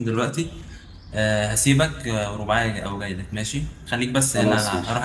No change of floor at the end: Yes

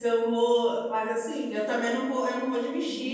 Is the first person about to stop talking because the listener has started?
No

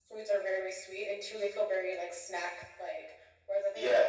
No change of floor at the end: Yes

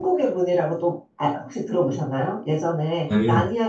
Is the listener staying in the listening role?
Yes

